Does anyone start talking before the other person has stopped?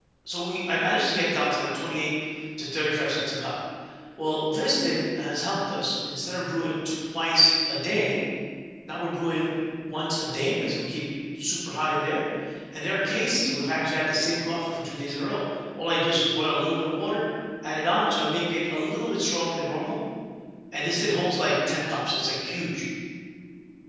No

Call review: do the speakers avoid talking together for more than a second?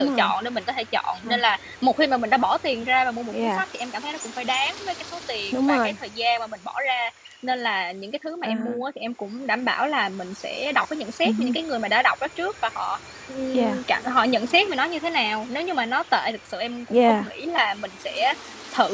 Yes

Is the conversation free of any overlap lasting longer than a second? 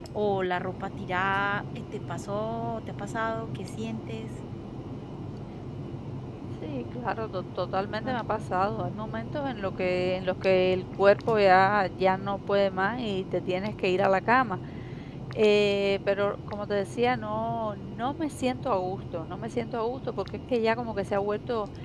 Yes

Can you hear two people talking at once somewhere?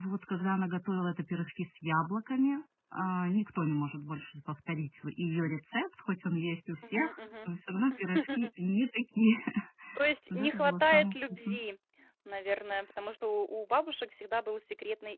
Yes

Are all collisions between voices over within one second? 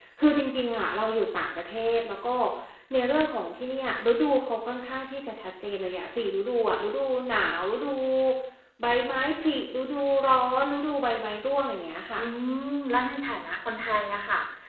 Yes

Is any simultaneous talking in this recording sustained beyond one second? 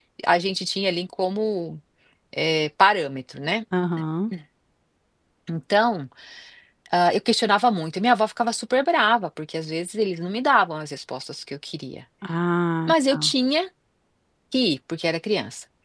No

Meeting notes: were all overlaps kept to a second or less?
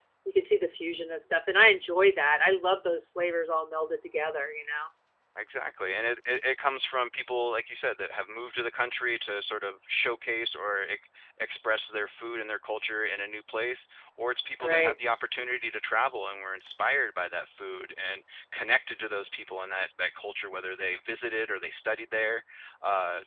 Yes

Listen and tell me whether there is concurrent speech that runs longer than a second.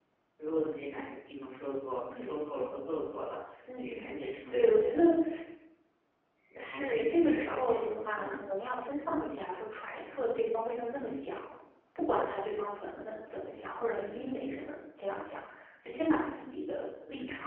Yes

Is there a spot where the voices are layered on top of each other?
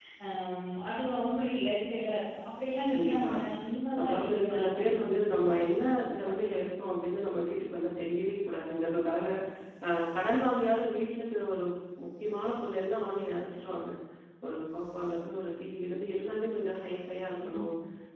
Yes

